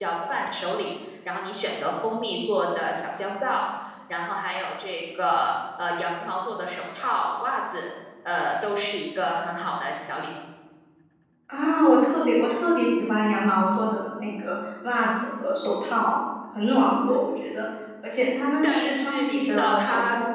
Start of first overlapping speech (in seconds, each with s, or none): 18.6 s